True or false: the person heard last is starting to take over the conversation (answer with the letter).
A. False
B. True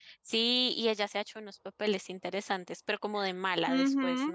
B